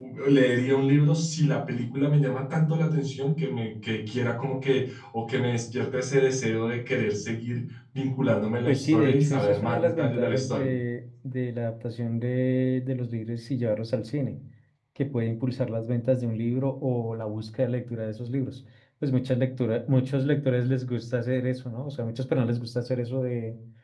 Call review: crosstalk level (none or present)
present